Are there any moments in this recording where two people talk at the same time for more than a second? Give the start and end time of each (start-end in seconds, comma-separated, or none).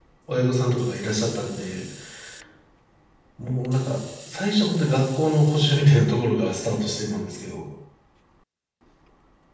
none